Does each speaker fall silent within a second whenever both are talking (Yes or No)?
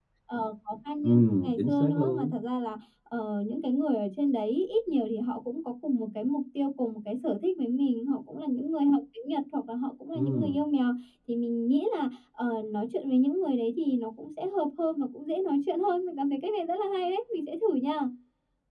No